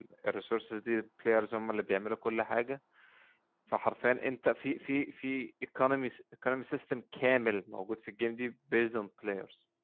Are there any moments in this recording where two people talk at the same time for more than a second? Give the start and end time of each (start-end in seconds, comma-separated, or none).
none